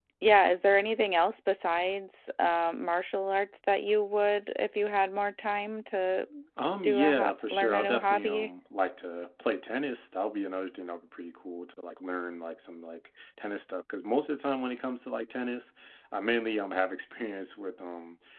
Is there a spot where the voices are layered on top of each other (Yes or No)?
Yes